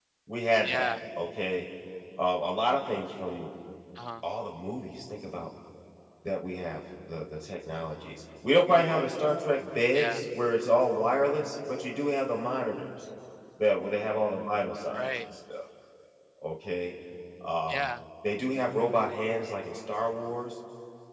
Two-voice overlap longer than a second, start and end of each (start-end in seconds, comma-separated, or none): none